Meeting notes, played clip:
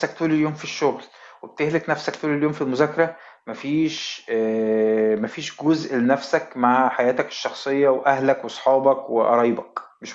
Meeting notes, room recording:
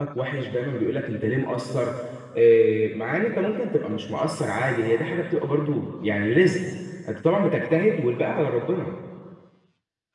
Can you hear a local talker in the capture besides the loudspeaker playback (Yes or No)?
Yes